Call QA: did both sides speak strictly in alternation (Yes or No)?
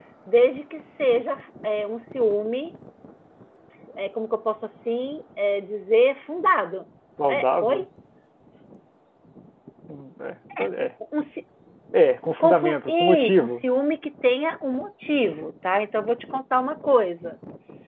No